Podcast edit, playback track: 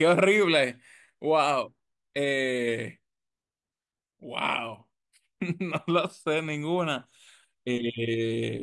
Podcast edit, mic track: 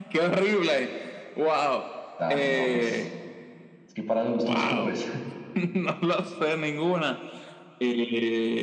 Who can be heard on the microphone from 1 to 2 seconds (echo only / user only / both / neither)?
echo only